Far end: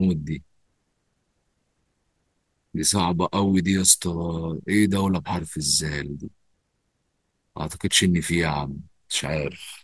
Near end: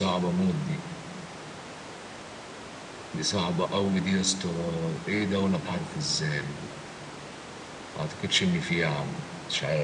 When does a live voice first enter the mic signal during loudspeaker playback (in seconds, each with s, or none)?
none